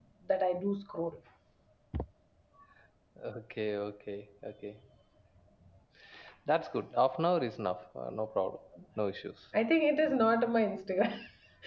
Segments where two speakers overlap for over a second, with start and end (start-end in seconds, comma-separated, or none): none